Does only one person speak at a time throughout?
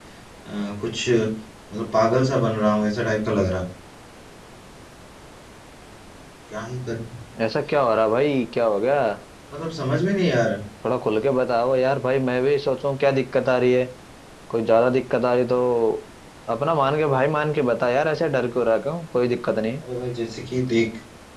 Yes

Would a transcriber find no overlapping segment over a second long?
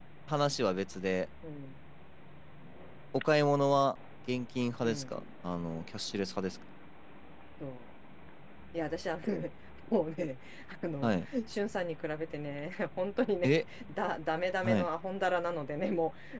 Yes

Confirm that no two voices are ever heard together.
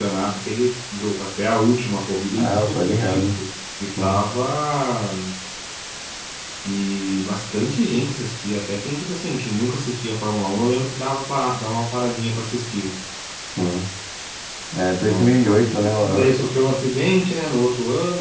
No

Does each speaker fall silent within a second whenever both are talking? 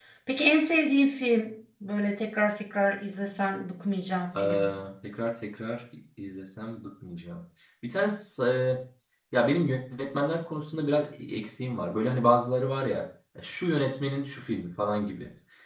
Yes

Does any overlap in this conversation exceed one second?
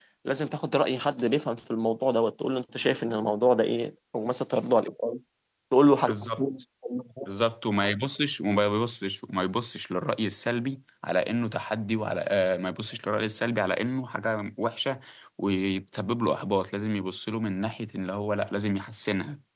No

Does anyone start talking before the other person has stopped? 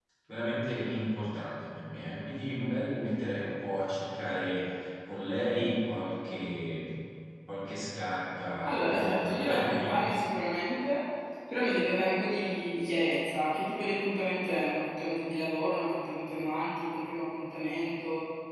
Yes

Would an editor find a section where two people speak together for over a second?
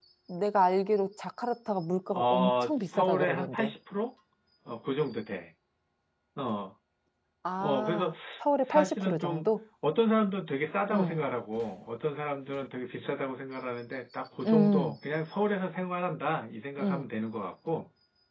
Yes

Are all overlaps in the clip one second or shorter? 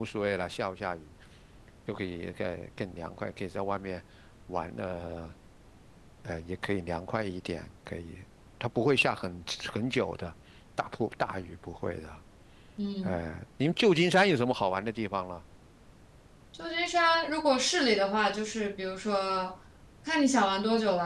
Yes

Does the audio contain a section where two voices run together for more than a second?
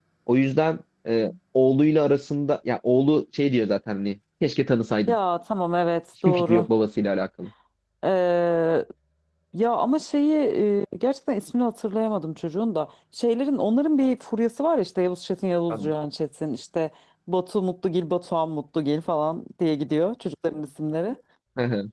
No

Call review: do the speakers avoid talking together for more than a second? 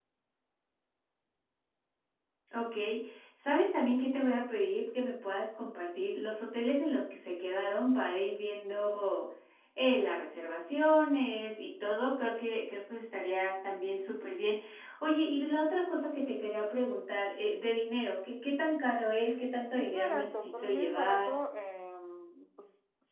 No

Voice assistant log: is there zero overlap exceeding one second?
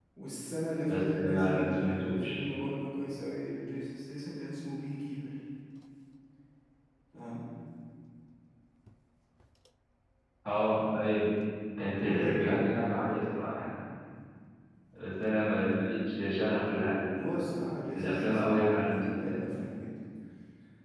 No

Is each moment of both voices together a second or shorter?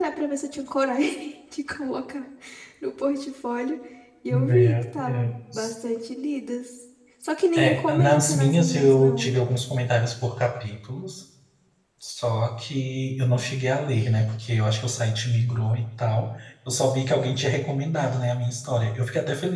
No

